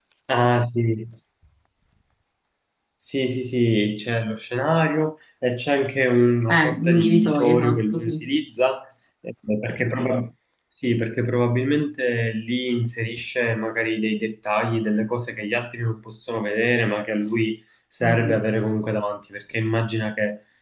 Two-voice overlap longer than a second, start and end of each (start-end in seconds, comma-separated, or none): 6.5-8.2